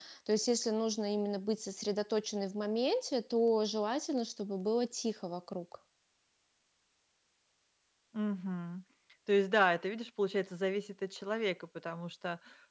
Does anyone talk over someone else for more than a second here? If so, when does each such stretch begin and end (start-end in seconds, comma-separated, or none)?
none